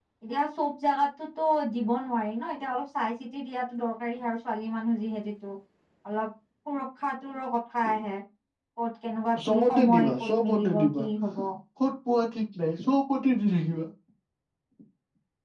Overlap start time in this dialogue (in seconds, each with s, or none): 9.5 s